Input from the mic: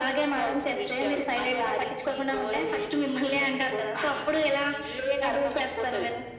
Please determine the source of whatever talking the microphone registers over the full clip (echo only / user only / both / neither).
echo only